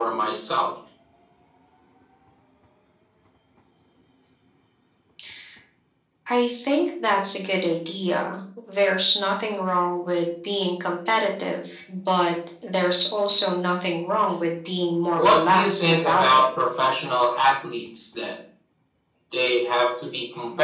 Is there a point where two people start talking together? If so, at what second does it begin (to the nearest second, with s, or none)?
15 s